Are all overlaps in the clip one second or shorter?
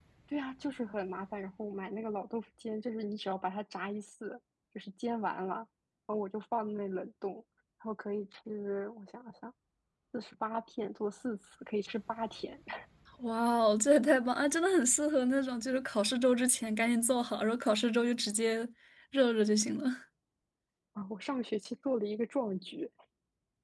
Yes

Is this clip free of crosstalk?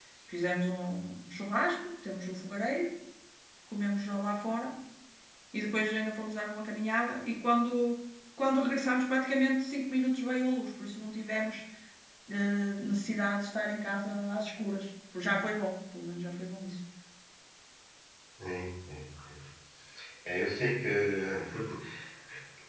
Yes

